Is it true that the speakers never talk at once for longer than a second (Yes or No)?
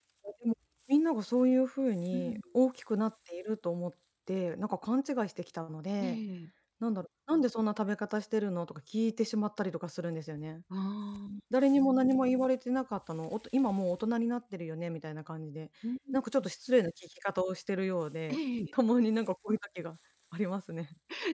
Yes